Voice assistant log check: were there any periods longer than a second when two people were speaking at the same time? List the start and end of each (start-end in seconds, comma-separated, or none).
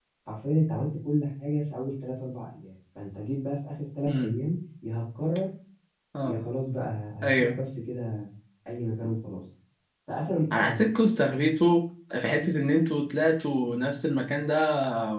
none